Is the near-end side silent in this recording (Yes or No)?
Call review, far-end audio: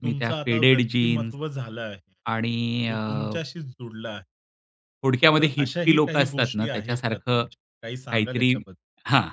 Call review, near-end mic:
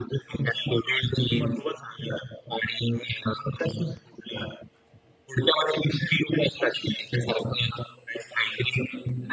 Yes